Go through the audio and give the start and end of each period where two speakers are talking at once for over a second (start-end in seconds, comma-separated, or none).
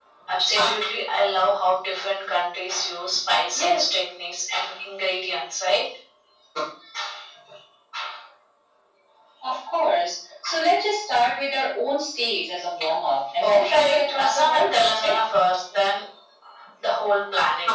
13.4-15.2